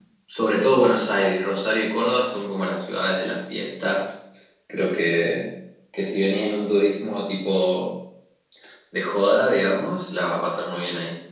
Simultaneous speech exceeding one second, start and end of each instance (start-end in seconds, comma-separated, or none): none